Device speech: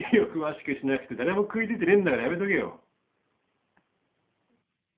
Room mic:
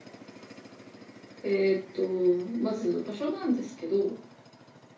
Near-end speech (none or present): present